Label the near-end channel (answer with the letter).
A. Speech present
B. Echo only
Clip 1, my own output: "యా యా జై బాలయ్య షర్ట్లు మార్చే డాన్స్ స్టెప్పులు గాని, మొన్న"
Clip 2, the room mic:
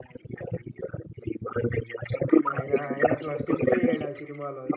A